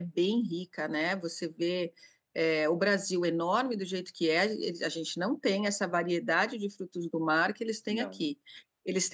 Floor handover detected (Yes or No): No